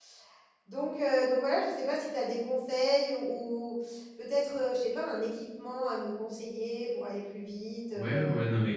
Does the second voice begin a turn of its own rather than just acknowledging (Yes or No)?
Yes